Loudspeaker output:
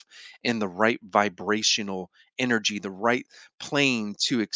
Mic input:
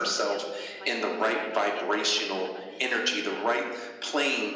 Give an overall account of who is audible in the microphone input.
both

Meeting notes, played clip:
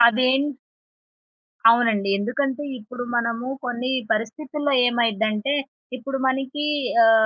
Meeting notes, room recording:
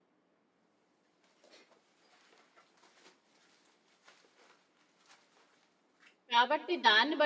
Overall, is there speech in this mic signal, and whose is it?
user only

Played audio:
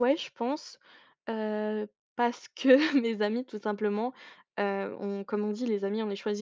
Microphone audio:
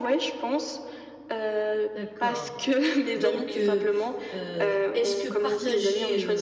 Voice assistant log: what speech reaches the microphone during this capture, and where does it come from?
both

